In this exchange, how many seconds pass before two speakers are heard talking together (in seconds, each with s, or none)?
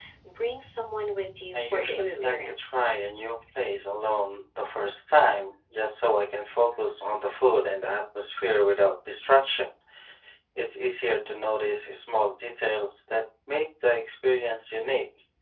1.5 s